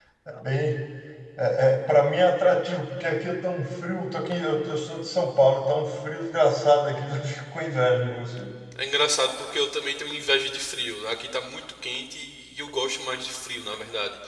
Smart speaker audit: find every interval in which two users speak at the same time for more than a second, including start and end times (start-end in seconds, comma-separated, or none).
none